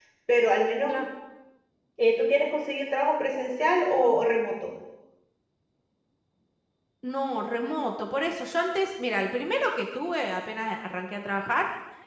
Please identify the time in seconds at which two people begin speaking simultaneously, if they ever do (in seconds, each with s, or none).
none